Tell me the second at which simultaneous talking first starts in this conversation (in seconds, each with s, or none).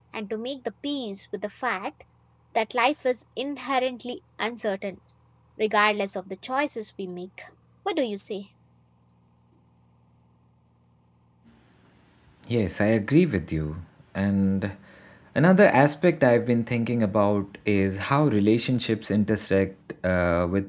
none